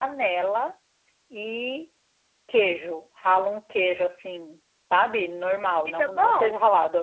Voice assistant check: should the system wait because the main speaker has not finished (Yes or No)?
Yes